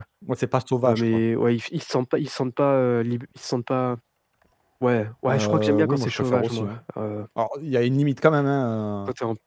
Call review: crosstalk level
present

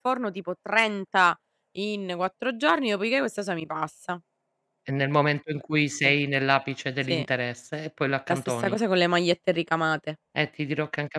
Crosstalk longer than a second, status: none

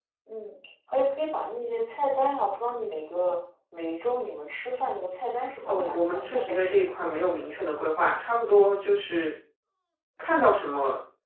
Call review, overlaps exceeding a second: present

